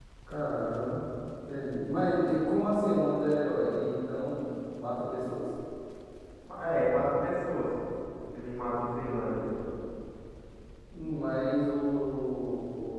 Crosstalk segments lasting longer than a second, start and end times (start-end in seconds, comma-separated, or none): none